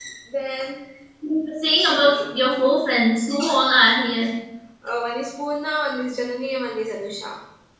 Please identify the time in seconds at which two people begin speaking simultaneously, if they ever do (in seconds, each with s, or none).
none